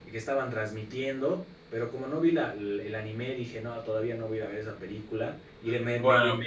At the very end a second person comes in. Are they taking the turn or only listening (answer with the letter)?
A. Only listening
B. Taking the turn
A